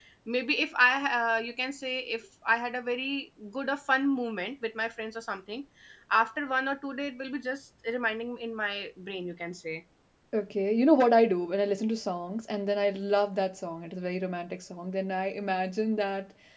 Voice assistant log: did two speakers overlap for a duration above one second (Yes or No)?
No